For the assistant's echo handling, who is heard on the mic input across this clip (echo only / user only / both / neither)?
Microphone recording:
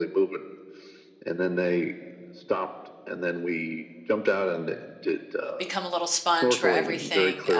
both